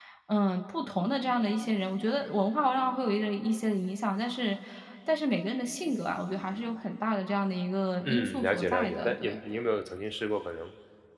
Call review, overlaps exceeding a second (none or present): present